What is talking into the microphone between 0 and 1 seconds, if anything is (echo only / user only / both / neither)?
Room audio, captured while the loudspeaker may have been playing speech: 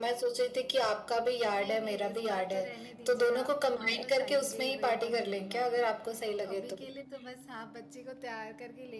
echo only